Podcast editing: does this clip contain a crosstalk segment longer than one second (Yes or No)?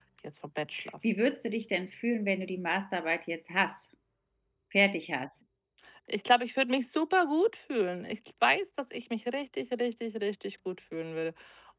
No